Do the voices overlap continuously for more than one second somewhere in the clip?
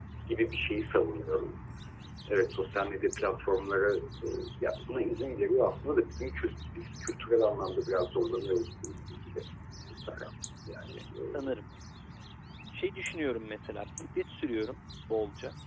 No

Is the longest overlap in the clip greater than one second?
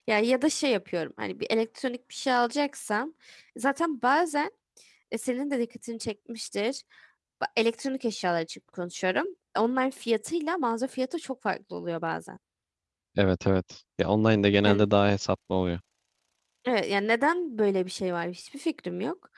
No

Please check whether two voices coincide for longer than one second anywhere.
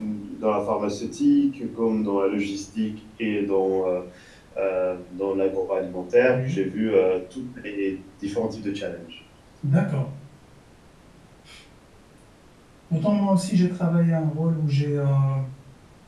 No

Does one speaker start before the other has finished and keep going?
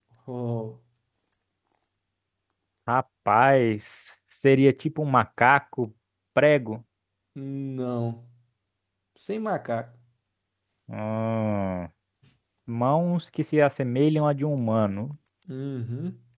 No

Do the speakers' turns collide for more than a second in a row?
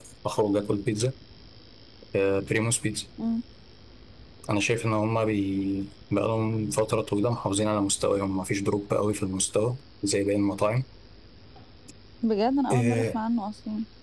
No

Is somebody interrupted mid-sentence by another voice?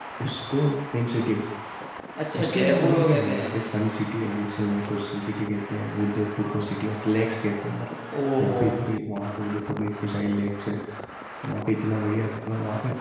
Yes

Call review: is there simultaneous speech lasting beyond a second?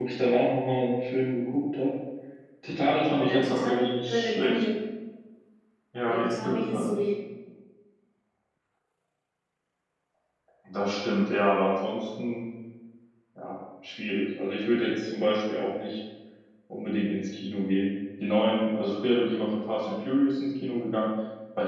Yes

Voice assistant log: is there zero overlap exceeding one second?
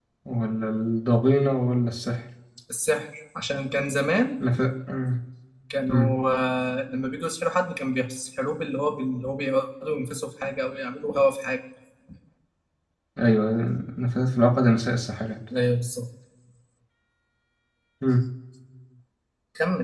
Yes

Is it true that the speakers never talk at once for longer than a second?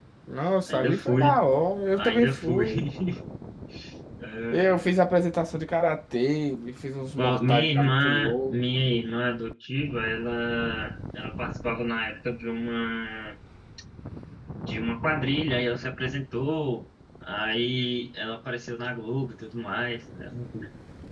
No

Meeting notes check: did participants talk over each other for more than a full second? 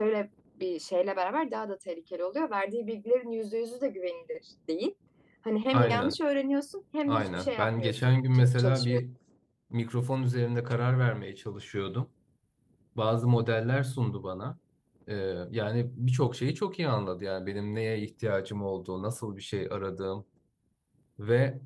Yes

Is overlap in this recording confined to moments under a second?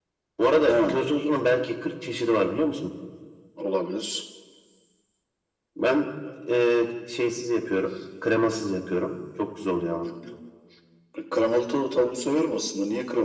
Yes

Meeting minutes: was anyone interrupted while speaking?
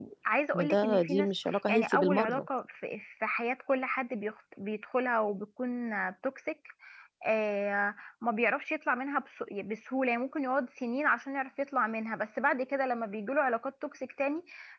Yes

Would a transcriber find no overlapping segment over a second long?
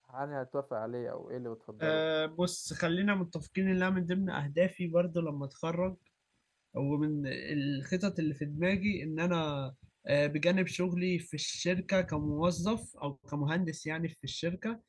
Yes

